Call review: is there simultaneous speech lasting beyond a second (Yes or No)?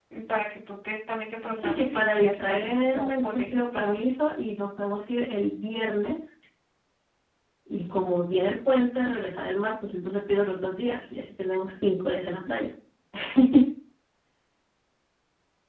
Yes